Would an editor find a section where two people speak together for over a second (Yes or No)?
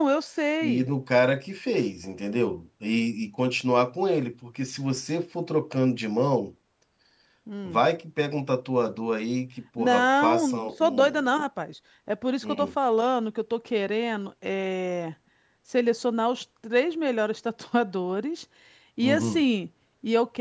Yes